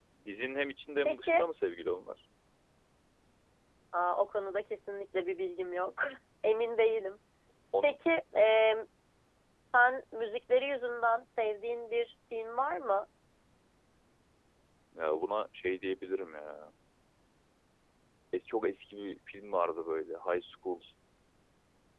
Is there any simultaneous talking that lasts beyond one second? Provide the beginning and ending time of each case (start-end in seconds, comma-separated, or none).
none